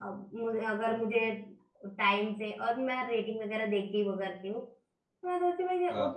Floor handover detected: No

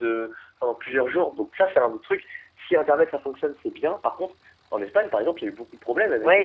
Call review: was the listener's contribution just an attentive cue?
No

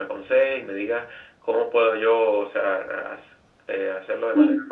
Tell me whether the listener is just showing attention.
Yes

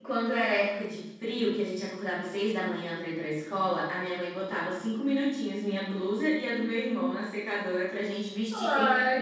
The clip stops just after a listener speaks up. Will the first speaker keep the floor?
No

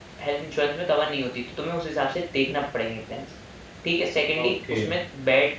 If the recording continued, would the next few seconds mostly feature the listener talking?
No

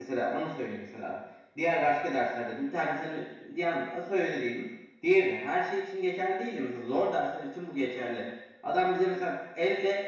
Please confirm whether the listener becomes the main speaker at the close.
No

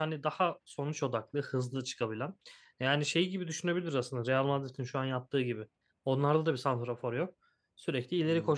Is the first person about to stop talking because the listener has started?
No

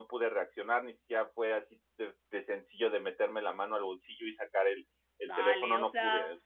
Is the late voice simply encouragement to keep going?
No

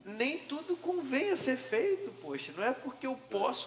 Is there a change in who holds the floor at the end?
No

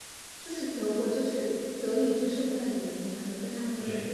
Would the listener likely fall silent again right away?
No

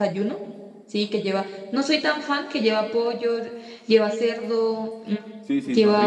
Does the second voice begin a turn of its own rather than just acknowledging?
Yes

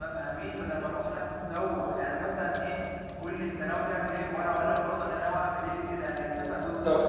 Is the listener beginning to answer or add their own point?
No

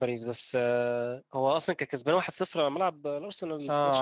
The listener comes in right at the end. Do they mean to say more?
Yes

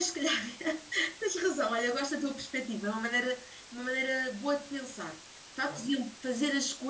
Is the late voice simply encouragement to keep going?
Yes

